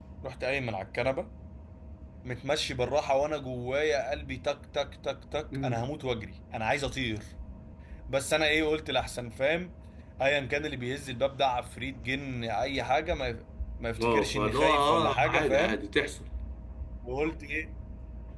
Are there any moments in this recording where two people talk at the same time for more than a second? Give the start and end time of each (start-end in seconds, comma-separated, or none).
14.0-15.8